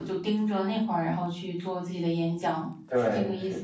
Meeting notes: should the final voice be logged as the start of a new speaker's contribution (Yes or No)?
Yes